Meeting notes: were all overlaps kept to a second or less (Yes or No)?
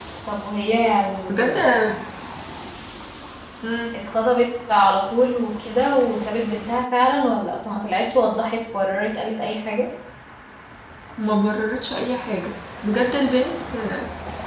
Yes